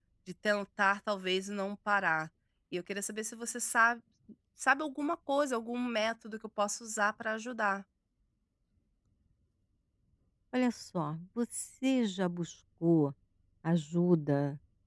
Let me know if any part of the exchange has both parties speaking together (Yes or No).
No